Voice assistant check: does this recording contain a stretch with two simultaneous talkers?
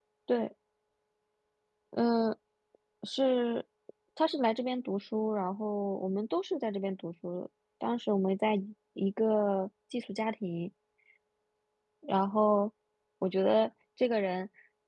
No

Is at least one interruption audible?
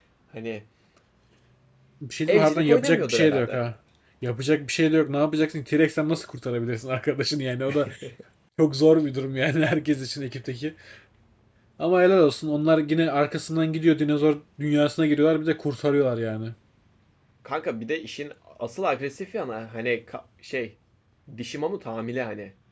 Yes, from 2.3 s

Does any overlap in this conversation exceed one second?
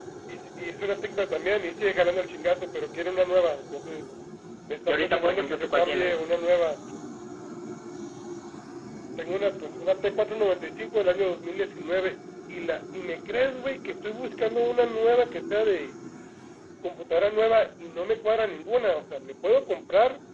Yes, from 4.9 s

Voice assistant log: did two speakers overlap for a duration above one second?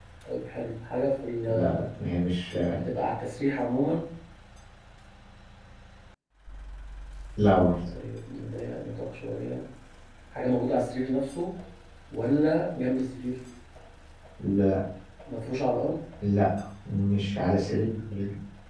No

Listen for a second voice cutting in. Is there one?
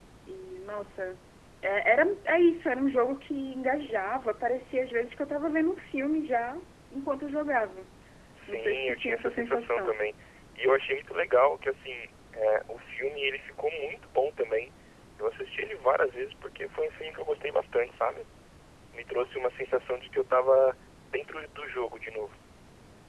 Yes, from 8.5 s

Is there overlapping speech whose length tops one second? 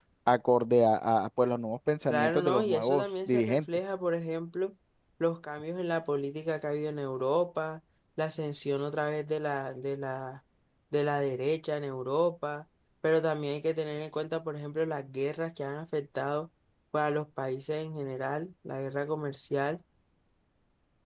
Yes, from 2.1 s

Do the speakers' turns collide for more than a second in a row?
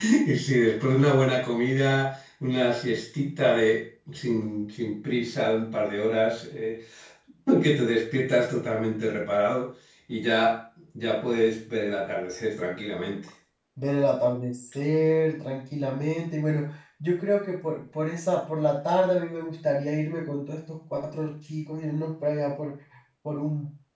No

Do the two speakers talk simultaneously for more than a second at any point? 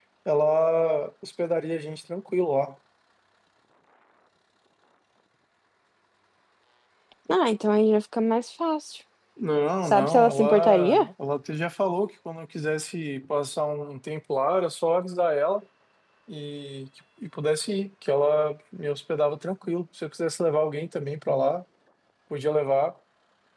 Yes, from 9.8 s

